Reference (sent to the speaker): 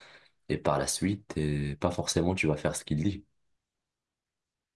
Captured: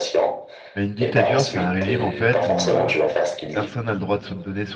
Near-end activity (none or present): present